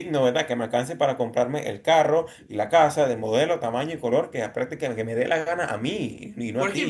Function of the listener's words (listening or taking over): taking over